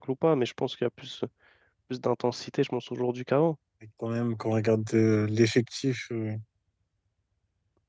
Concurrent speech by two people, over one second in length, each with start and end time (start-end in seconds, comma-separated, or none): none